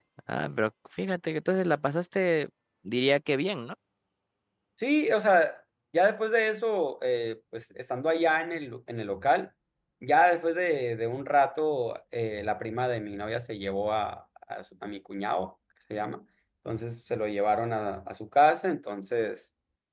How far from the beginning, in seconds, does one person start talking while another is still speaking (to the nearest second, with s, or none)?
none